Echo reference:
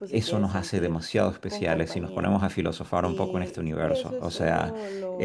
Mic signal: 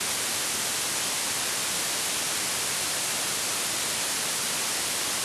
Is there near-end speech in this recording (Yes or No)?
No